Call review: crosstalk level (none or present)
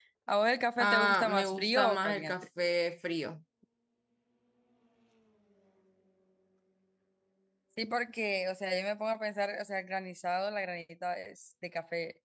present